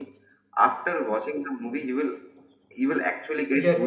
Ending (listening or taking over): taking over